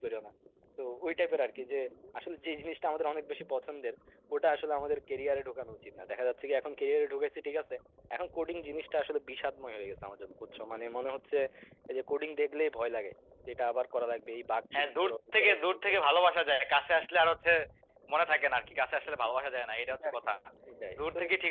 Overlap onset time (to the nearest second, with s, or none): 15 s